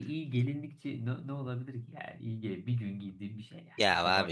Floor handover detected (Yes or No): Yes